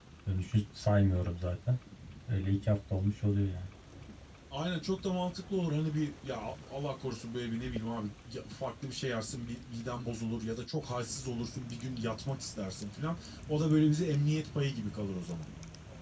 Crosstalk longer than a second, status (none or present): none